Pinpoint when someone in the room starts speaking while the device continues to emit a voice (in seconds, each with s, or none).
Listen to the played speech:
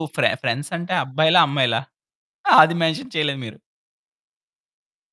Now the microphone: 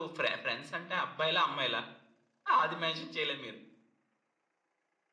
none